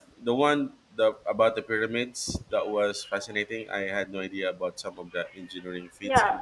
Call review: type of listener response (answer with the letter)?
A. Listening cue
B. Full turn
B